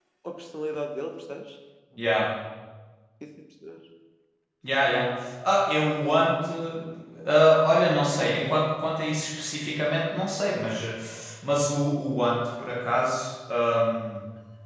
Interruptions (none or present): none